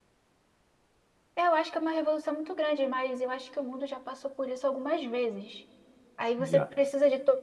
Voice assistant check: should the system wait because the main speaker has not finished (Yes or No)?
Yes